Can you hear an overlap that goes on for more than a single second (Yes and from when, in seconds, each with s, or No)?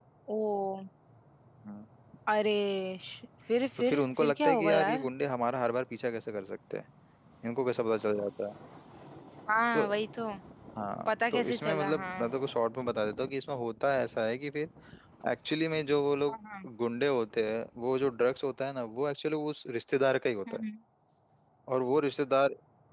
Yes, from 3.8 s